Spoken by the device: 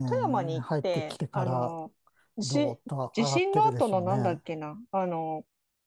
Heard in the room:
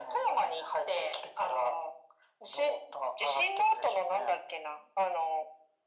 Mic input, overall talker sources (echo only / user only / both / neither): echo only